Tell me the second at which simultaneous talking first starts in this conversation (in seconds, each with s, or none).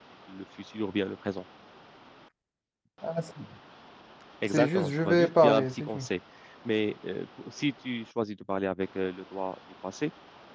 4.5 s